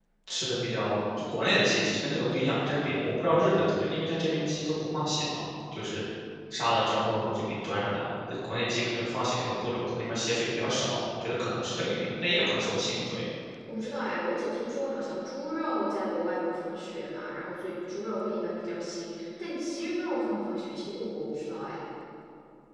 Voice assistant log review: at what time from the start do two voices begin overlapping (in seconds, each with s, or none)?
none